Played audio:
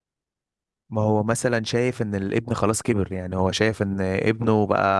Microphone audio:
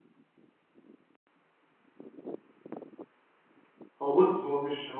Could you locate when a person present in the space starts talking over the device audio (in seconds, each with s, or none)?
4.0 s